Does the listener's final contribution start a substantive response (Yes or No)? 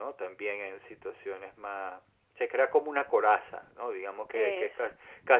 No